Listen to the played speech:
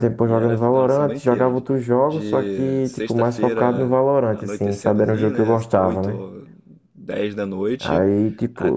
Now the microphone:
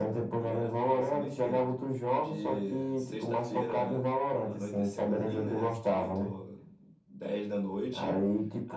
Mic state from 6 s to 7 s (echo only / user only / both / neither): echo only